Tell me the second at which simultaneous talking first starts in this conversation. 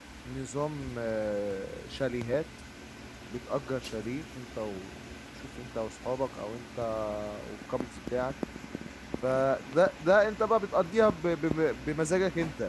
none

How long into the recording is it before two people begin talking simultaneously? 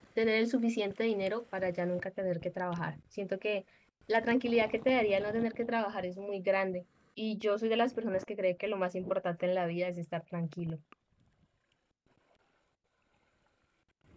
none

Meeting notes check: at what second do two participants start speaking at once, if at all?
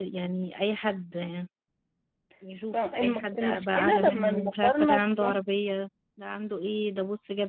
2.7 s

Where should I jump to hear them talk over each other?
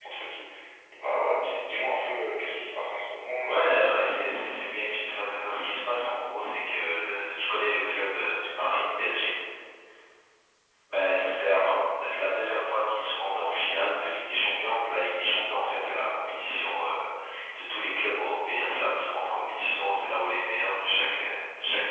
3.4 s

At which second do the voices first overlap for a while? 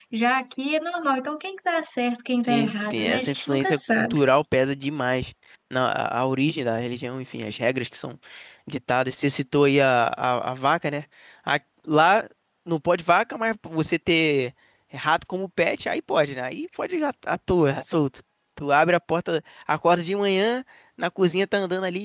2.4 s

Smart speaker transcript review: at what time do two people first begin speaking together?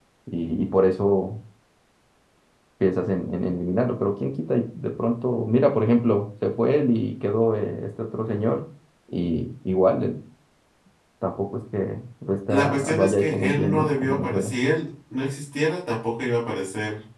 12.5 s

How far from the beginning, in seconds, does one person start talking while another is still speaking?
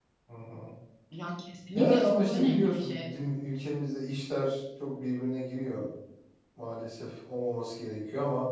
1.8 s

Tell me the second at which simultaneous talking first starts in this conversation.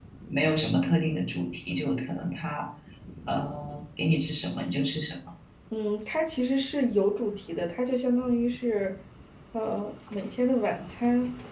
none

